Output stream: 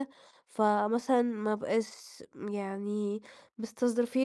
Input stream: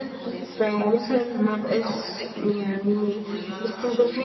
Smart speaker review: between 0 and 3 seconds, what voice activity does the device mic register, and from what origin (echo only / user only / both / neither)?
both